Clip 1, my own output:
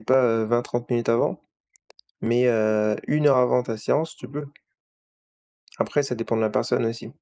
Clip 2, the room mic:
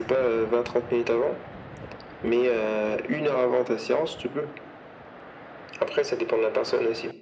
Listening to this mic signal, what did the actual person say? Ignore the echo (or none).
none